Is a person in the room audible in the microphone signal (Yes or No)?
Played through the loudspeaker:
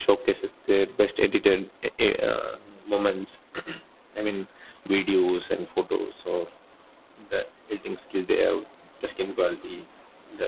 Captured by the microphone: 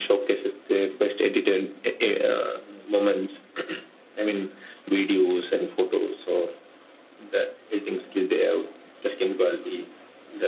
No